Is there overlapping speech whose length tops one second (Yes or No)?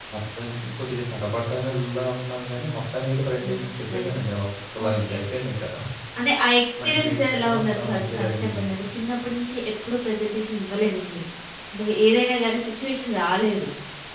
Yes